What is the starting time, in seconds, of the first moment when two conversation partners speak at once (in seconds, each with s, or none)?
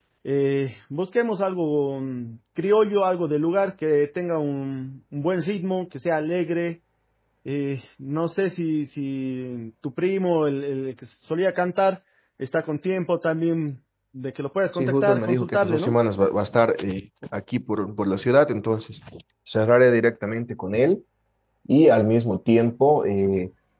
14.7 s